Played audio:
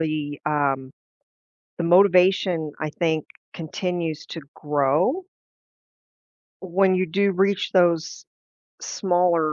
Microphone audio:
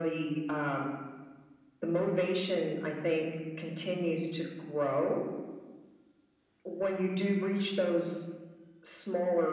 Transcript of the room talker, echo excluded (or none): none